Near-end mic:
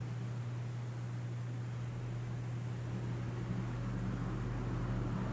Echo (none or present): none